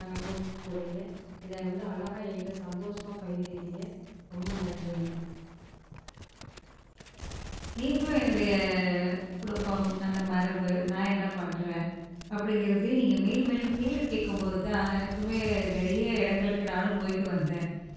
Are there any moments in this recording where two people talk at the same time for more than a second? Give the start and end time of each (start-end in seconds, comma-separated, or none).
none